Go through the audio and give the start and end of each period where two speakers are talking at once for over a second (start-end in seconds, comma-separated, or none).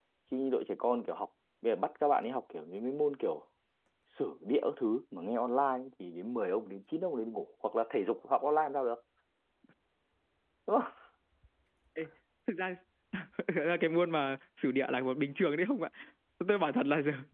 none